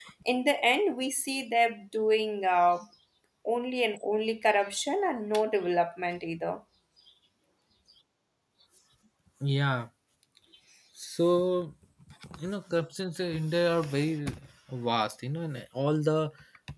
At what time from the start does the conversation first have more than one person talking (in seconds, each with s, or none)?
none